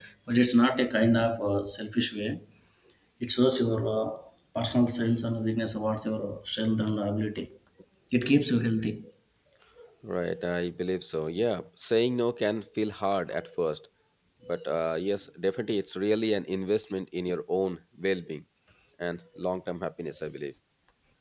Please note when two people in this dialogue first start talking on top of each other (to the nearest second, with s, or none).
none